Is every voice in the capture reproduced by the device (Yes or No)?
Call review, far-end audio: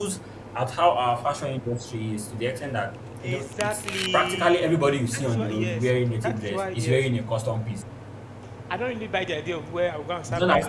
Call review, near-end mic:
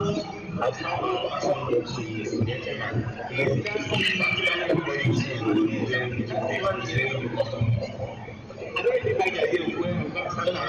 Yes